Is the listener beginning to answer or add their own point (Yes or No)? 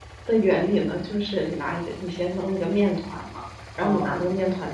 No